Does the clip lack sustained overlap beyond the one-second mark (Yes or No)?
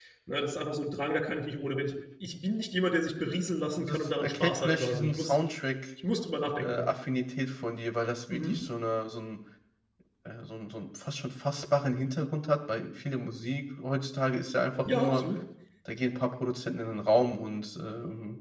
No